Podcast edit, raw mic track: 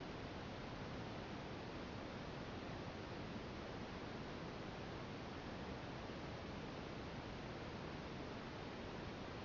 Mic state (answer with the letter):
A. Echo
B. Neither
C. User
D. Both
B